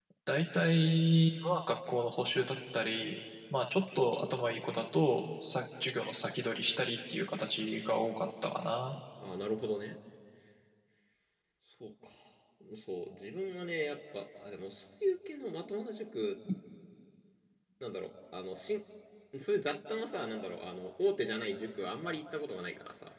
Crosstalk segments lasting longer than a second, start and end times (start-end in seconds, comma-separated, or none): none